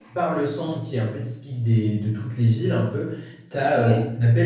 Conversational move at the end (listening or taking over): listening